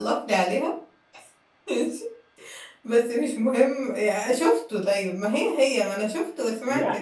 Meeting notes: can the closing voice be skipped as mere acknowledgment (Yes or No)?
No